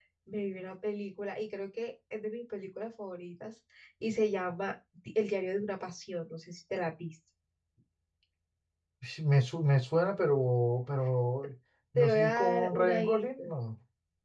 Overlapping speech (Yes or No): Yes